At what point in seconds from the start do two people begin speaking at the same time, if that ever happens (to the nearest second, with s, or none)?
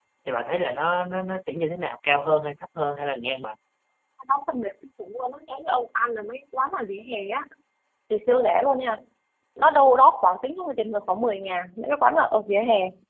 none